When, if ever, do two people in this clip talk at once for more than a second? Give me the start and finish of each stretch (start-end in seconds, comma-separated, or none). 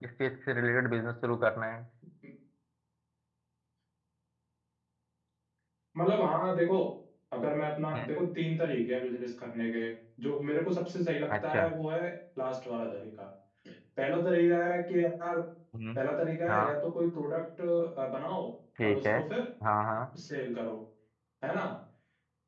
none